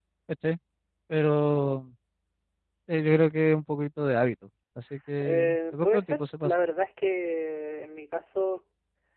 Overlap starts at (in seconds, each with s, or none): 5.2 s